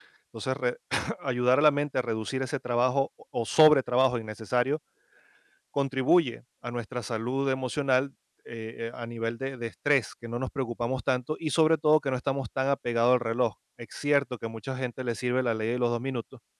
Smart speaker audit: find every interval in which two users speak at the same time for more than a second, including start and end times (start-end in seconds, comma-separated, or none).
none